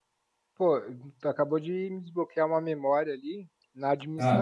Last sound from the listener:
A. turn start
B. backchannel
B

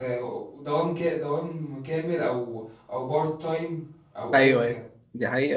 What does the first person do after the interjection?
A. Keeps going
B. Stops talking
B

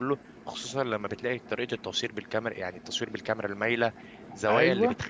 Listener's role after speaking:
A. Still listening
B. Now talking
A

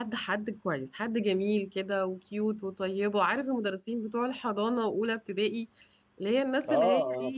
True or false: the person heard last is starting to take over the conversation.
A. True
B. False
A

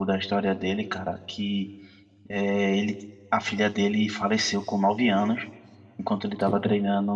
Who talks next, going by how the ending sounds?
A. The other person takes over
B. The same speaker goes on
B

